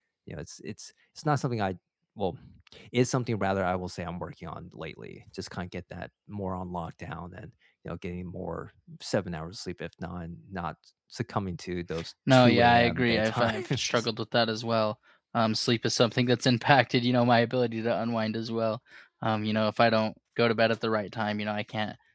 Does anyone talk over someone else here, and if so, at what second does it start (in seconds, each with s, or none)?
12.3 s